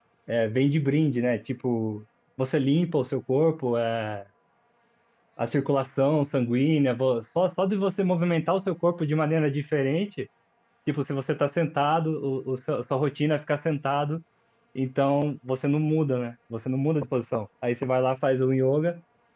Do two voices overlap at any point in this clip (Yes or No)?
No